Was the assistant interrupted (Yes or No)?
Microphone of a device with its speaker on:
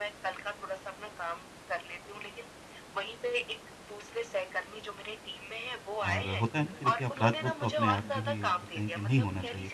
Yes